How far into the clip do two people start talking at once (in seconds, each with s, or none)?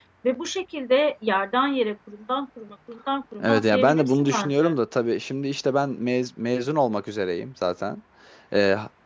3.4 s